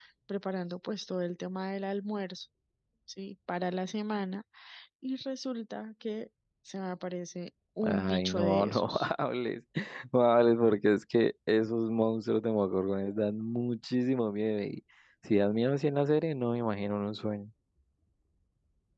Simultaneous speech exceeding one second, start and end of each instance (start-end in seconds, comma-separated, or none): 7.8-9.1